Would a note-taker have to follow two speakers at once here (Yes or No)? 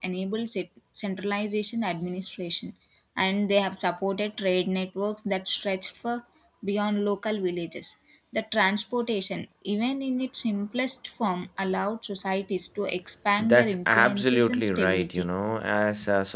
Yes